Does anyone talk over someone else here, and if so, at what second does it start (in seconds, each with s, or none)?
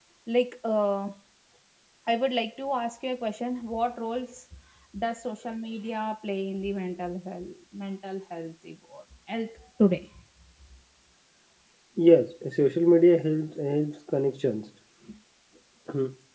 none